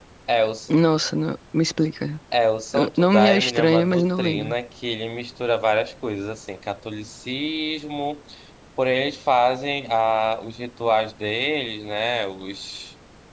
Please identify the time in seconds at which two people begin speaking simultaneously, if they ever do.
2.7 s

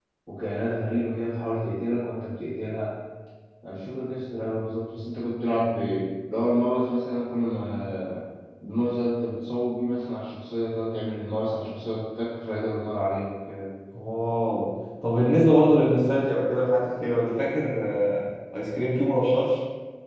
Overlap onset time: none

